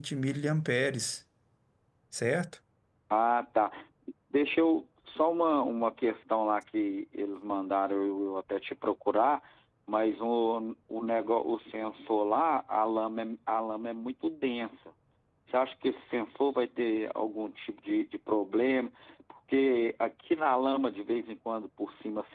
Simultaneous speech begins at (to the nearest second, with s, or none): none